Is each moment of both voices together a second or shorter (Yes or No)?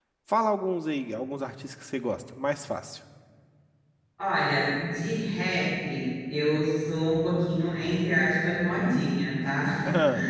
Yes